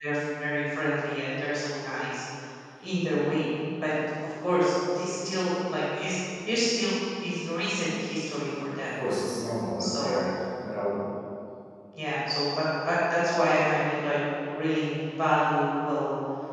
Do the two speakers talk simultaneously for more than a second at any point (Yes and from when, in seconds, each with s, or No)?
No